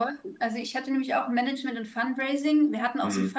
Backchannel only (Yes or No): Yes